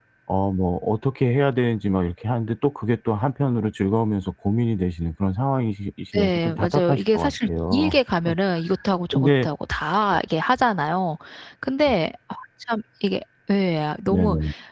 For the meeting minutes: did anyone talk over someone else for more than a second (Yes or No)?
Yes